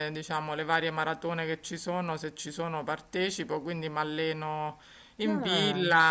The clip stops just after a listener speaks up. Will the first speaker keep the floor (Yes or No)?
Yes